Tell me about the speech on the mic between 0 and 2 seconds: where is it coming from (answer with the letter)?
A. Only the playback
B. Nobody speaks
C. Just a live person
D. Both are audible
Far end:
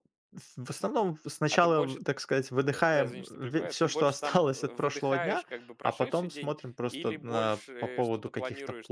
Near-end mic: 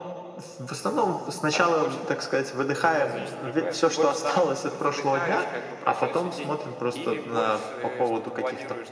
A